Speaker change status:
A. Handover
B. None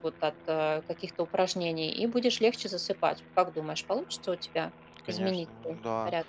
A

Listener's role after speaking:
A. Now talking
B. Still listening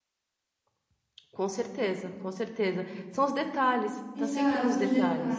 A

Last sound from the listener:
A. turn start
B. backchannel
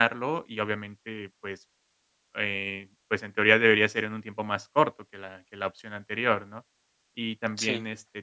B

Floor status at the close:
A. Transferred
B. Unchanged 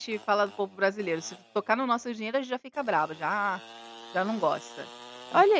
A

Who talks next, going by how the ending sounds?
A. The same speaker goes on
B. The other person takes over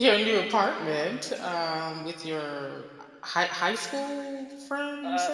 B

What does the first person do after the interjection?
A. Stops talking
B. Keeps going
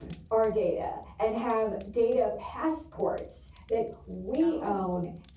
B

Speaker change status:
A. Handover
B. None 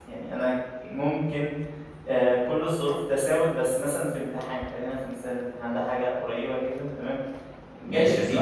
A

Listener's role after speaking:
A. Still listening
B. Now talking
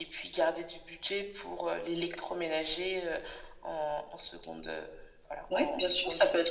B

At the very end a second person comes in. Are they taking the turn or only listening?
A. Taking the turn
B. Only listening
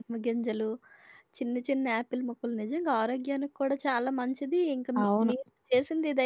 B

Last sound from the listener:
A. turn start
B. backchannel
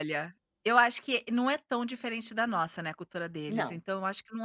B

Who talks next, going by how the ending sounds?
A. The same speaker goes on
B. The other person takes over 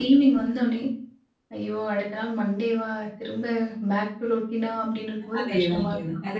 B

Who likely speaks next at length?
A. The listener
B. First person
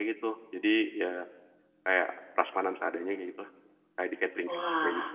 A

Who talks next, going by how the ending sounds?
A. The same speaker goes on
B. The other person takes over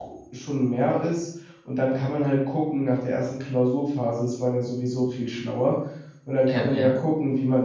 A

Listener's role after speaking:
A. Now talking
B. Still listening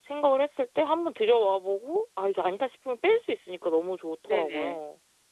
A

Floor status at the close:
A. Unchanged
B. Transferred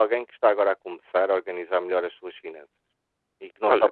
B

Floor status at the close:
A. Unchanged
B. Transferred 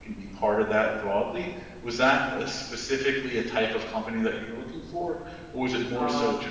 B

